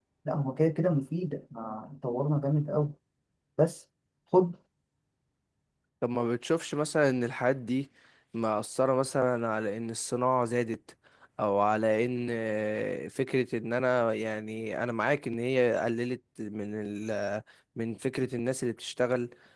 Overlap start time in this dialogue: none

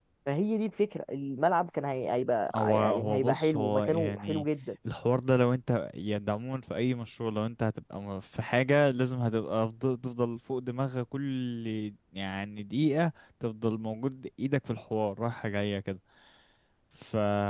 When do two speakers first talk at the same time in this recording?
2.5 s

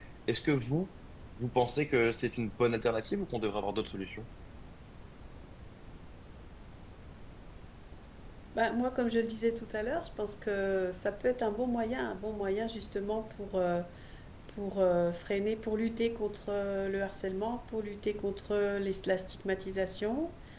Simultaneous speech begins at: none

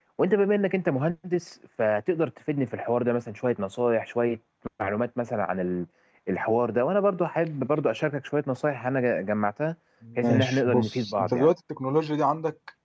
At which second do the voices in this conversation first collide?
10.2 s

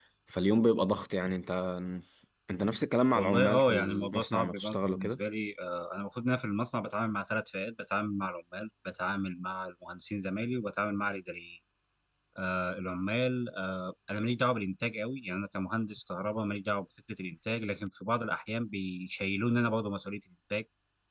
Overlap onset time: 3.1 s

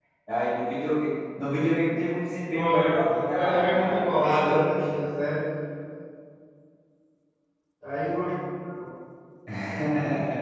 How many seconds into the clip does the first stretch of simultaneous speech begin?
2.5 s

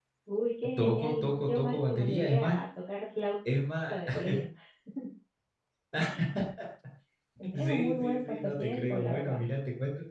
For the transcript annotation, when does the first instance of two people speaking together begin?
0.8 s

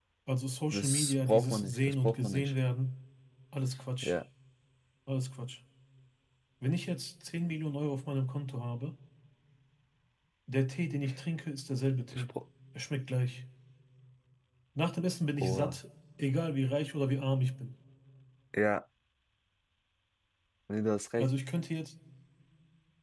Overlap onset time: 0.7 s

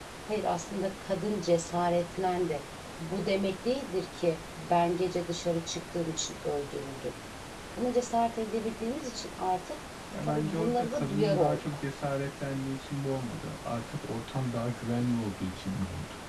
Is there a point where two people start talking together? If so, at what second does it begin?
10.2 s

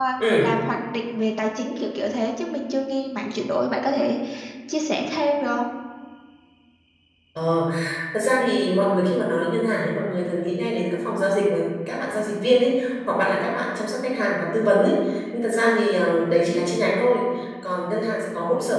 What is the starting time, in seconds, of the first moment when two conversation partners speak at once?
none

